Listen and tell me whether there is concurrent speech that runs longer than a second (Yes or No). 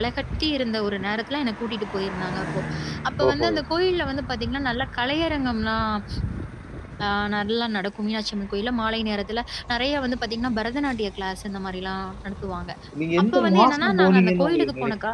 Yes